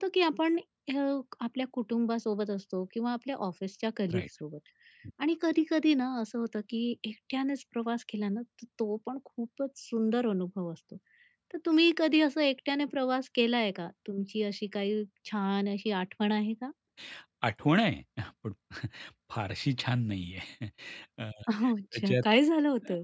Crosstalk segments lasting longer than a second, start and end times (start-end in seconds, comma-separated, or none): none